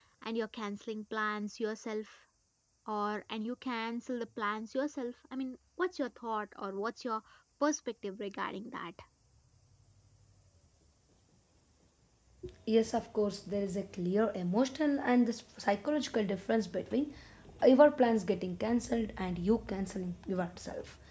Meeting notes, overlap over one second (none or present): none